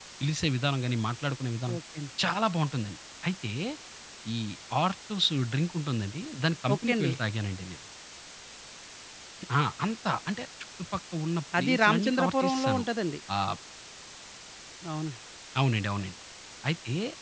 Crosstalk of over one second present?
Yes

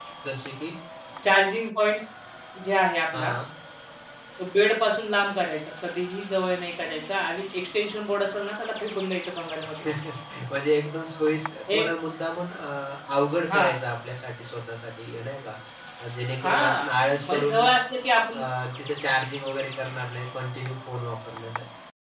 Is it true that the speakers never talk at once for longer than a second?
Yes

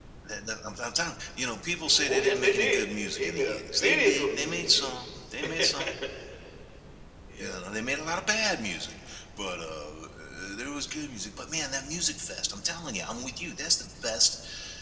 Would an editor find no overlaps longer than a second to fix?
No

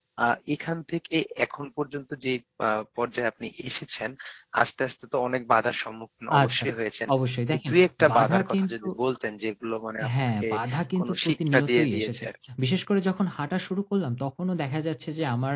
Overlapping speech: Yes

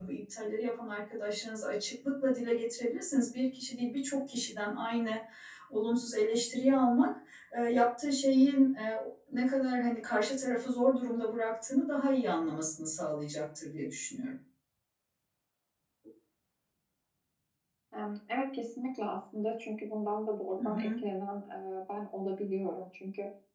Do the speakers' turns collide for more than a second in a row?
No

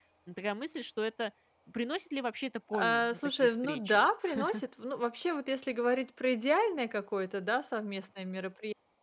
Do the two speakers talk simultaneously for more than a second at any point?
Yes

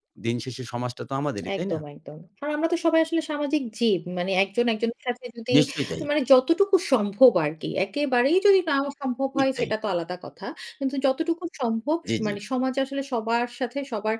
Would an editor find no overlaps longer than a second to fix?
Yes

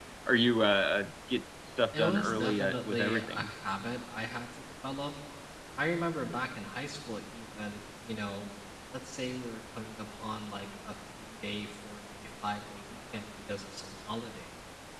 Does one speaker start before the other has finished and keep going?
Yes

